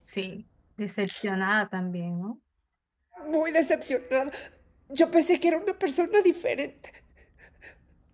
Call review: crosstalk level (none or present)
none